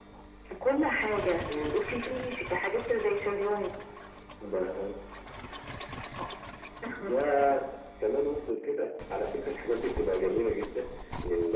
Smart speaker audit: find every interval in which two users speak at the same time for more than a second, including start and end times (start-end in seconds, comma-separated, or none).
none